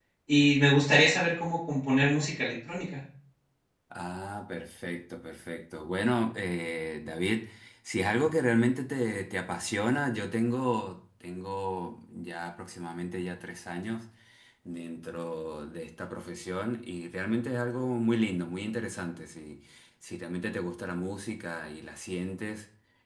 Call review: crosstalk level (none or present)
none